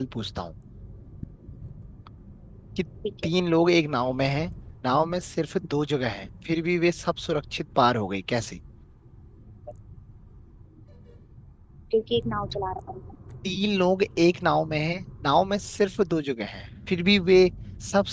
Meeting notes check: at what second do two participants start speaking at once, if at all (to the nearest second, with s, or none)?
none